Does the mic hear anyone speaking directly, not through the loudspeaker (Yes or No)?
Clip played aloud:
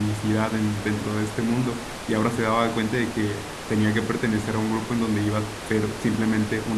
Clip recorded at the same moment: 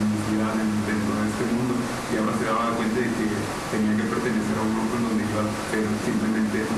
No